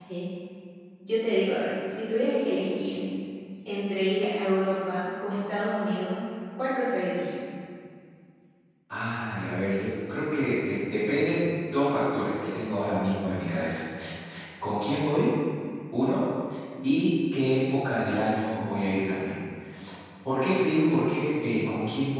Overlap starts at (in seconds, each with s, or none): none